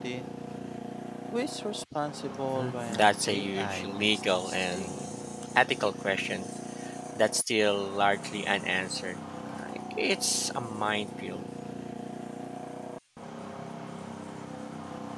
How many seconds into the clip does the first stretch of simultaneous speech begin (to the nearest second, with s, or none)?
3 s